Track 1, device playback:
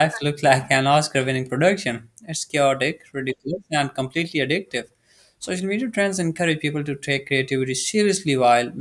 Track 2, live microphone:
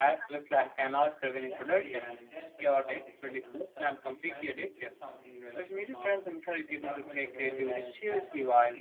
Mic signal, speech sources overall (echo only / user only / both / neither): both